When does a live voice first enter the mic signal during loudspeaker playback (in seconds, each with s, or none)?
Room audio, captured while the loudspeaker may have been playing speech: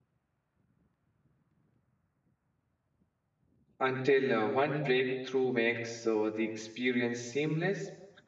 3.8 s